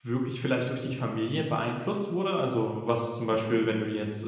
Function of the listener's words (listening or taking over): listening